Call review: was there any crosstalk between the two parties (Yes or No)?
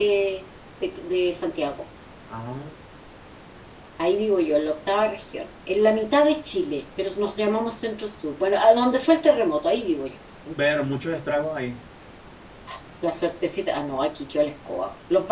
No